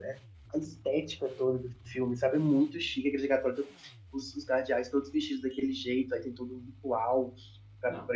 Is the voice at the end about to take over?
No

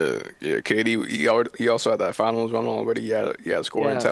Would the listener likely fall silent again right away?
No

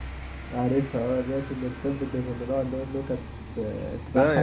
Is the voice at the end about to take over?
Yes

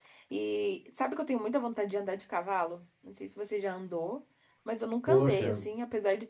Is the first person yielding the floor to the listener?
No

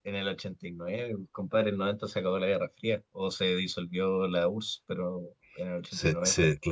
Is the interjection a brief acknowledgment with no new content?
No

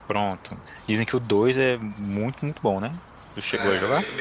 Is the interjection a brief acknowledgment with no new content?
No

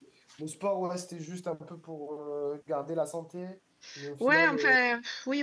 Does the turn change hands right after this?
Yes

